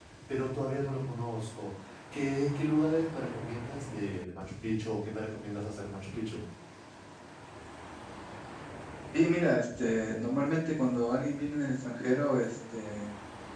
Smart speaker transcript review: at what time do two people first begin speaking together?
none

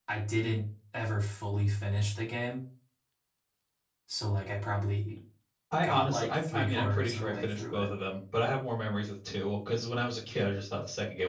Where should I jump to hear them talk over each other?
5.8 s

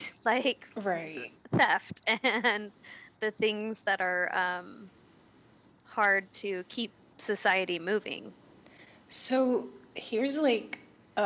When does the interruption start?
none

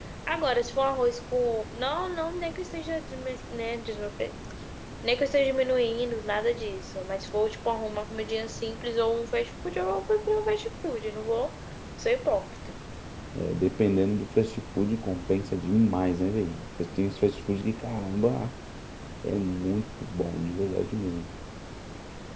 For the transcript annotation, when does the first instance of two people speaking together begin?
none

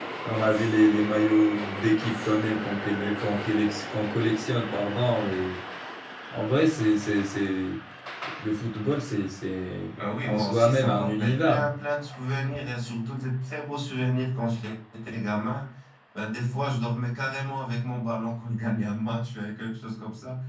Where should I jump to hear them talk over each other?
10.0 s

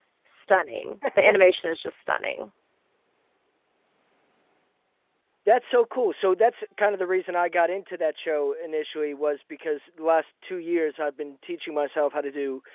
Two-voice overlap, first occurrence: none

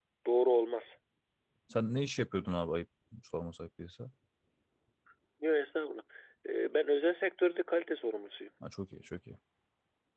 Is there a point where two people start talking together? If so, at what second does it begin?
none

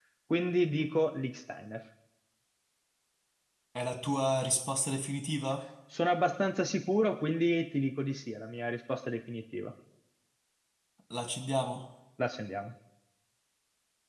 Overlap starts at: none

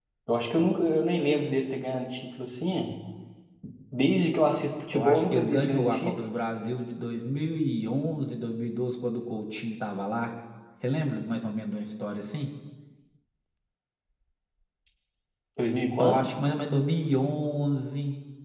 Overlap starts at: 4.9 s

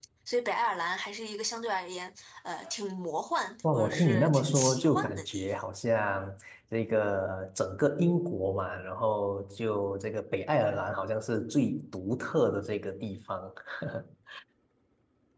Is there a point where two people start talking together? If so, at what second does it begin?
3.6 s

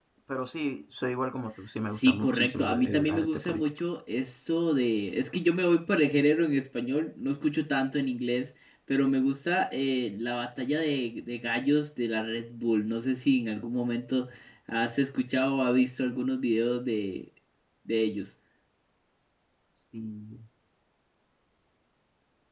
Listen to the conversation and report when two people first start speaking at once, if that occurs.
1.9 s

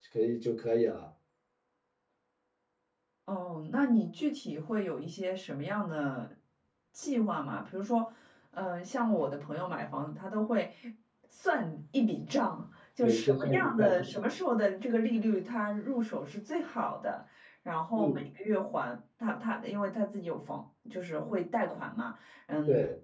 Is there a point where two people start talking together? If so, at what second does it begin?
13.0 s

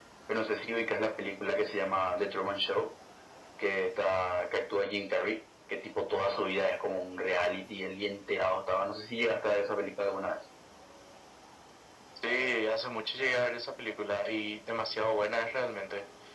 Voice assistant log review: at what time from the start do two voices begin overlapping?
none

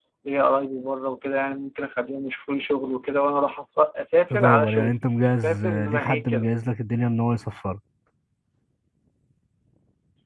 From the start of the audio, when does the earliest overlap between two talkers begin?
4.3 s

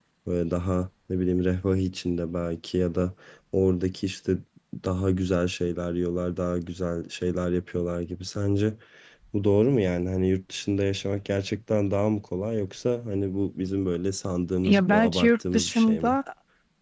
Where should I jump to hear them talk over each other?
14.6 s

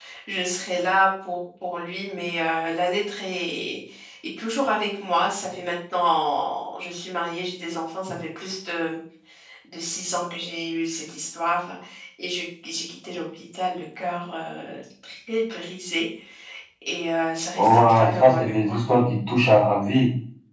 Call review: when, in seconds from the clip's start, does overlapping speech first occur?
17.6 s

